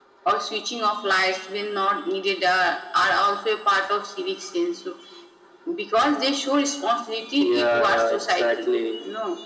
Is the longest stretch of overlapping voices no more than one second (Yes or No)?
No